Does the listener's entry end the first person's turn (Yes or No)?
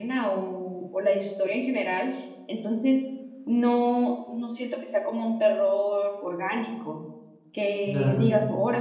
No